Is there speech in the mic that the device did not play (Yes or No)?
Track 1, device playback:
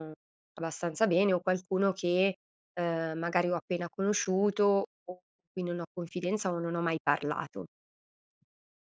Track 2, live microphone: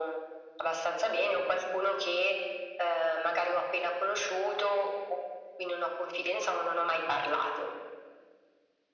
No